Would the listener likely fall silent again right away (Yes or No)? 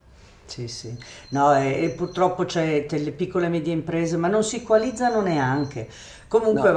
Yes